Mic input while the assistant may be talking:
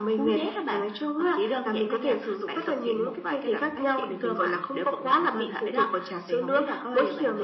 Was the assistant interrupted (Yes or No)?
No